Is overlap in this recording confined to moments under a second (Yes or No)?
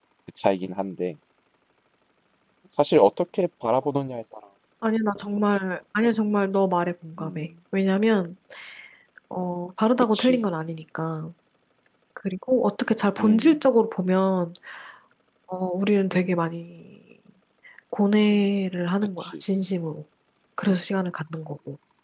Yes